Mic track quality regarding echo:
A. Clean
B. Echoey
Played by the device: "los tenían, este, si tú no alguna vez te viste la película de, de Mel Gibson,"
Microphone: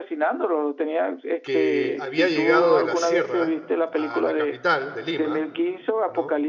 B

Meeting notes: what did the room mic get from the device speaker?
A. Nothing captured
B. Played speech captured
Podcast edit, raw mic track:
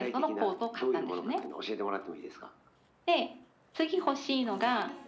B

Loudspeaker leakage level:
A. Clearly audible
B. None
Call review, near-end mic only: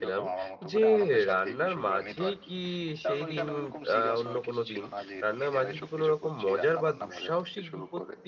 A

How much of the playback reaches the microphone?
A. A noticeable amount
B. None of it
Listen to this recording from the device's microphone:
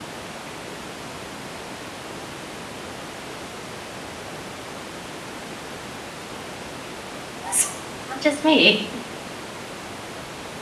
B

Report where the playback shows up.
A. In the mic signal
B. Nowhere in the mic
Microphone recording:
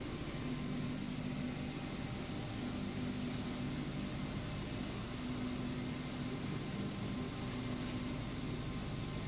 B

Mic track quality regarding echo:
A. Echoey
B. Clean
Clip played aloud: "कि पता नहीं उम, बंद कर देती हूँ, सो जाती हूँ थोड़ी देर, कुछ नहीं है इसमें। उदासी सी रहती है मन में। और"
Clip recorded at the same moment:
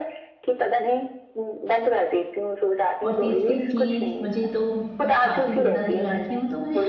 A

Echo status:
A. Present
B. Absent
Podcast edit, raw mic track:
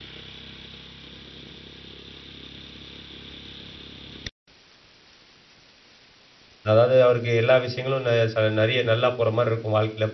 B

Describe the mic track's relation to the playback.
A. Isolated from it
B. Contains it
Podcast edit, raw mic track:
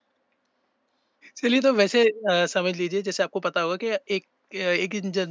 A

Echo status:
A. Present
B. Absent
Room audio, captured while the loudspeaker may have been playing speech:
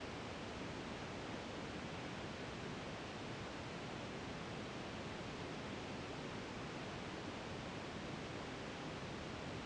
B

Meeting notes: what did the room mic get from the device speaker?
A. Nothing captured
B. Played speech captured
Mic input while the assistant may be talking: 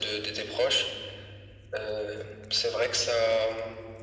B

